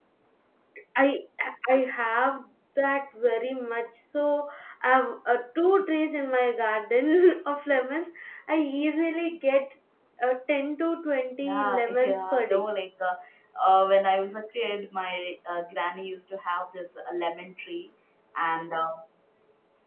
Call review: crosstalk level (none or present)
present